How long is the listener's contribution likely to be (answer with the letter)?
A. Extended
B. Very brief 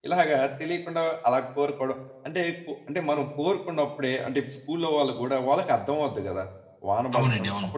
B